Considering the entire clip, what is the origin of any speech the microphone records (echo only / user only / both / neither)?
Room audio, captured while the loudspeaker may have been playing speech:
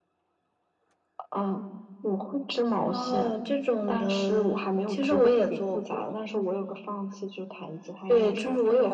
echo only